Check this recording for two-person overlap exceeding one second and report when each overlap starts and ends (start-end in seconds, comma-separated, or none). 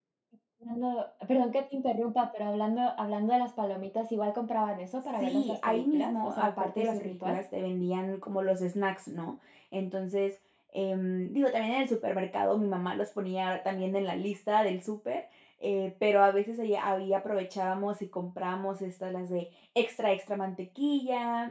5.2-7.4